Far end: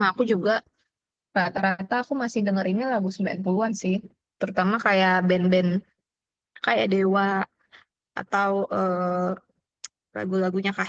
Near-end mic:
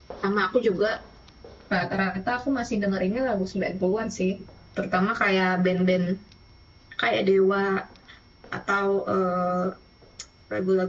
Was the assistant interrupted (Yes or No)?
No